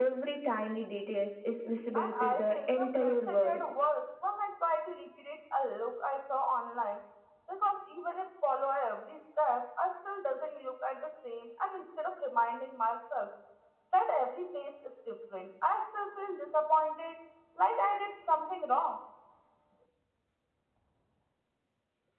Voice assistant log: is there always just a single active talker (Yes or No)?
No